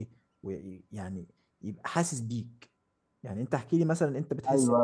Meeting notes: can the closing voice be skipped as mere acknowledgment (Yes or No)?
No